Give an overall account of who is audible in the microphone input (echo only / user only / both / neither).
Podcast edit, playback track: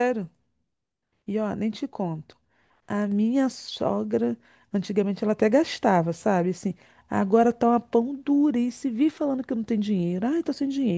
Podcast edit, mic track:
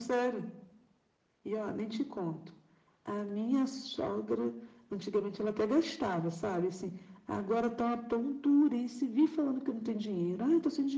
echo only